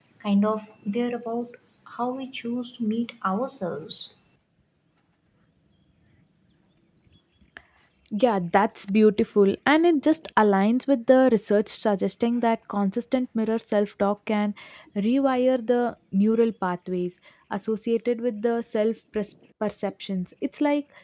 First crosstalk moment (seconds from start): none

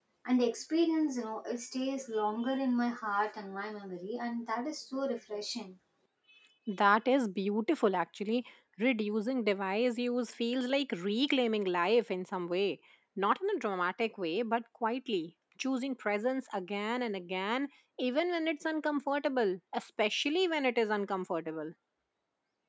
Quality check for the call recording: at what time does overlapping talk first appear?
none

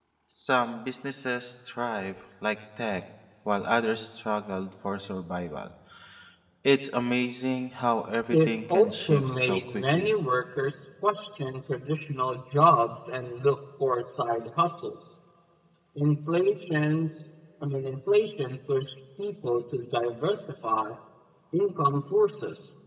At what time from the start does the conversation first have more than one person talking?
8 s

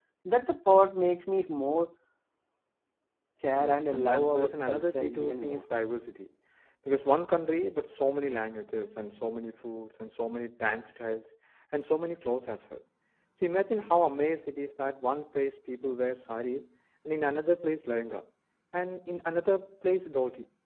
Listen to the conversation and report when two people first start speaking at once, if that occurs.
4 s

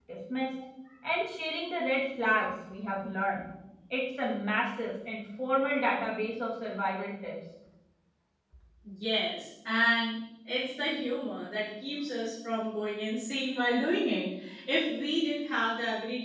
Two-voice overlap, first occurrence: none

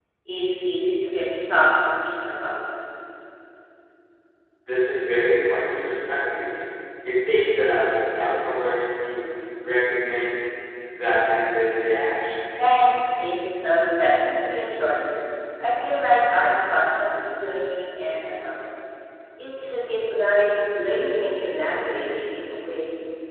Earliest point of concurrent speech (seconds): none

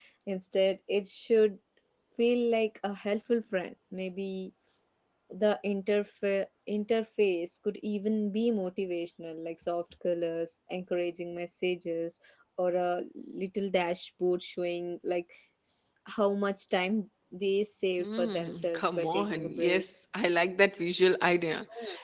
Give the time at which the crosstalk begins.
18 s

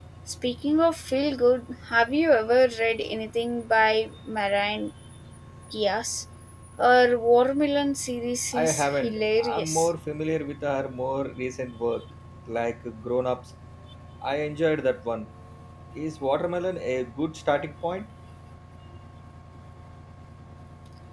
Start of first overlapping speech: 9 s

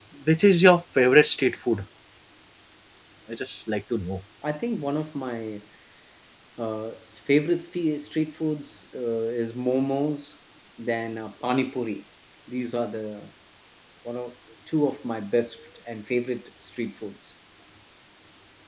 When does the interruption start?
none

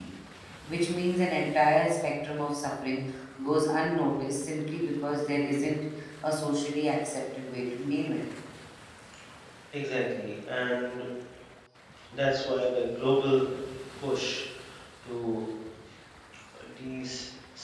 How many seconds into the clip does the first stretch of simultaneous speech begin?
none

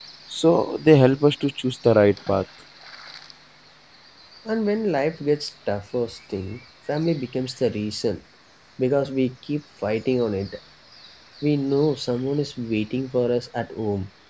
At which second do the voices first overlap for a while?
none

